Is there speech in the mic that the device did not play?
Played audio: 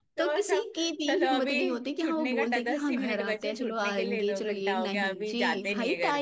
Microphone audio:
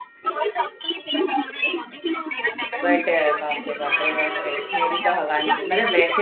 Yes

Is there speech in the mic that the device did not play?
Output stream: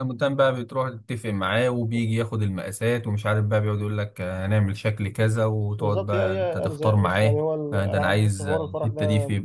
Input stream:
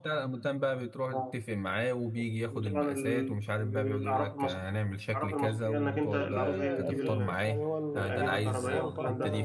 Yes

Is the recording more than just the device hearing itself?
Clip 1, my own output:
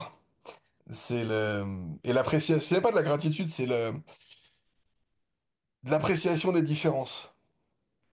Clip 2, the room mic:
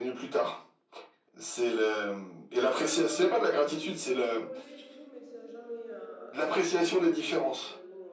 Yes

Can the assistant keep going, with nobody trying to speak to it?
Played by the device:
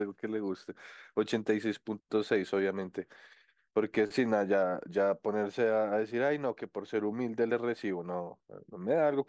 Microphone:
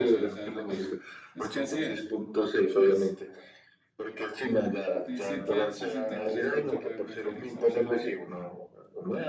No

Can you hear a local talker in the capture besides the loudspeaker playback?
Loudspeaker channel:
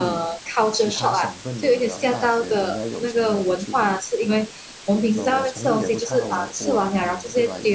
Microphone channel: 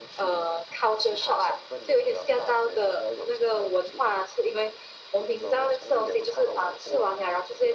No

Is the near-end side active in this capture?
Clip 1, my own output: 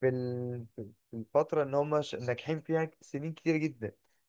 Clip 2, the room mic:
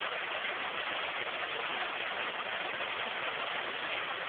No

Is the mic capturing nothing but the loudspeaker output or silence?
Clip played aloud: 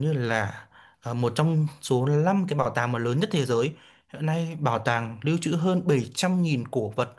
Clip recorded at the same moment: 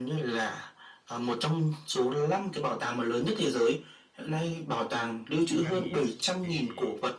No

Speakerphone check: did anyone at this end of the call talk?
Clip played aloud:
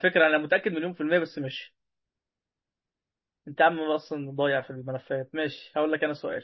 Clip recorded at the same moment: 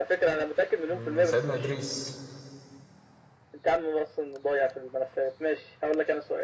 Yes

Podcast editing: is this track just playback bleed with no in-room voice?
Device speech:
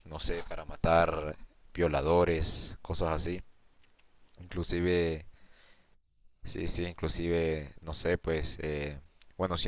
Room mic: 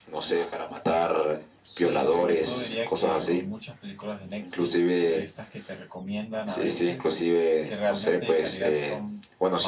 No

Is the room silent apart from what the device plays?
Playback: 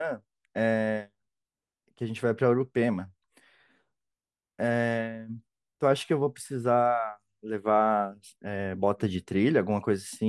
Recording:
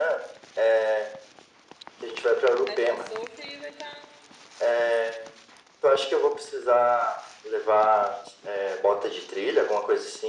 No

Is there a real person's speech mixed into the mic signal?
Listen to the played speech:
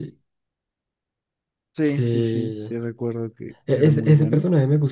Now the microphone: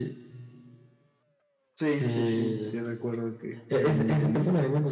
No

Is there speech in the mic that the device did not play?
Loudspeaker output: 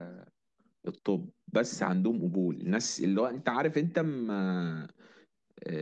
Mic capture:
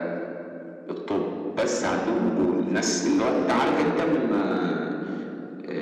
No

